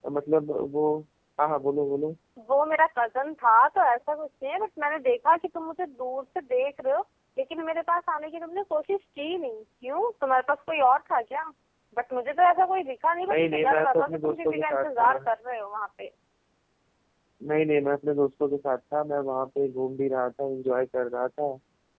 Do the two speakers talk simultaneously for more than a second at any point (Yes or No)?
Yes